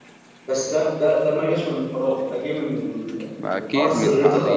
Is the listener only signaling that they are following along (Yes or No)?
No